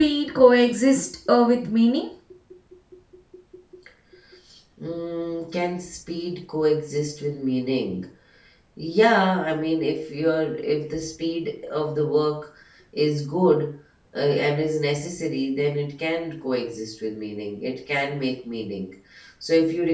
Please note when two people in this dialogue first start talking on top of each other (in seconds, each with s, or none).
none